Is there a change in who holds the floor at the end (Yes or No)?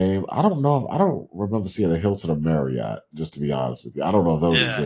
Yes